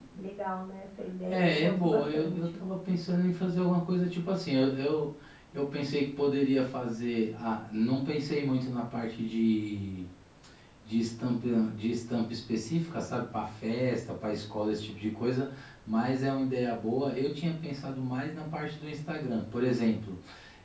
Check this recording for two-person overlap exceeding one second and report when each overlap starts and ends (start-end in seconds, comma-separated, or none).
1.3-2.6